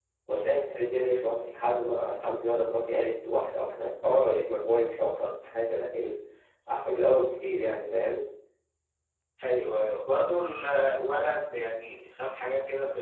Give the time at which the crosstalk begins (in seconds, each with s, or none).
none